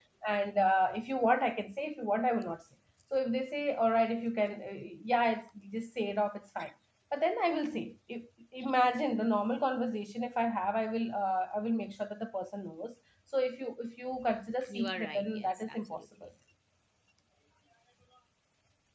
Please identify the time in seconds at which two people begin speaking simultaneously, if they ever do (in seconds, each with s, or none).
14.6 s